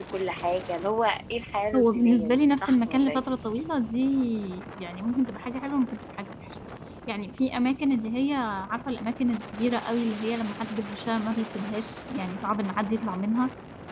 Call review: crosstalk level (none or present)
present